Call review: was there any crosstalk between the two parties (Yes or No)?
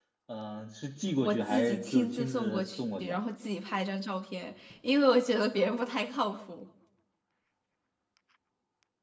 Yes